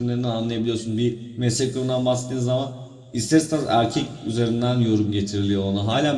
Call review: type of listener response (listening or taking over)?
listening